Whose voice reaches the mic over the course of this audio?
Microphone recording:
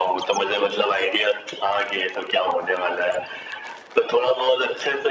echo only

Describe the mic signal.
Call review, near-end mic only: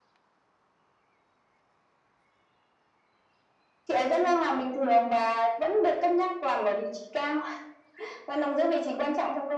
echo only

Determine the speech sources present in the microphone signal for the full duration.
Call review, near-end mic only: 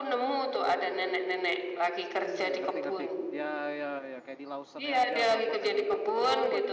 both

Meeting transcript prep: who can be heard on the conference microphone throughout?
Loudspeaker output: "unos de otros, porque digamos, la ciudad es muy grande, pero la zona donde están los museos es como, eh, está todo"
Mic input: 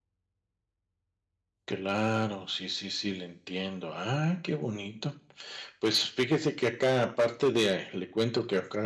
user only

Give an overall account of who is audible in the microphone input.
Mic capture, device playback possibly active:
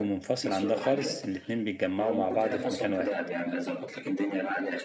both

